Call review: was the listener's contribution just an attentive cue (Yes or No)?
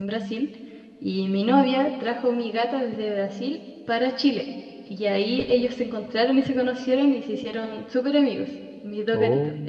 Yes